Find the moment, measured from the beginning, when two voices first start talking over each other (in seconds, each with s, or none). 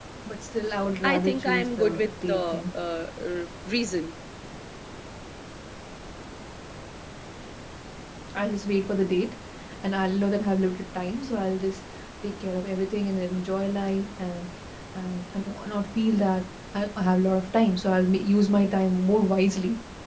1.1 s